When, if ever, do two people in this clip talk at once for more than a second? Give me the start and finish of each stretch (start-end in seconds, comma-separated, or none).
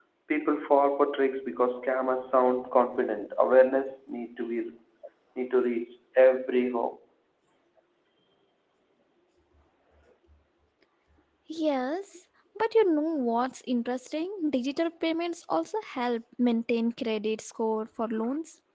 none